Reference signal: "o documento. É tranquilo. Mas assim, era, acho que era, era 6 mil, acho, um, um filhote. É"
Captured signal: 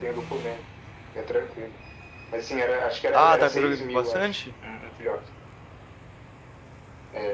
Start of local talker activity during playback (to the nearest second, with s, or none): 3 s